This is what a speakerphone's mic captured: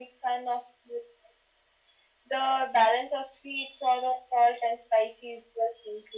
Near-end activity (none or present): none